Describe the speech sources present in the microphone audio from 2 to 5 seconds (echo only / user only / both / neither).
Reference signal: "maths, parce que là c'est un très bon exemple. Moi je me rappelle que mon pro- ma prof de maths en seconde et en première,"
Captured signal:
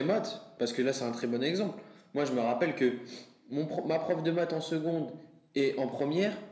echo only